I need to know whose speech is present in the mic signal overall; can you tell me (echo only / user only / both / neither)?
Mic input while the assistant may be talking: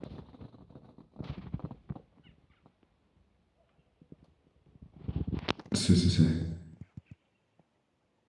user only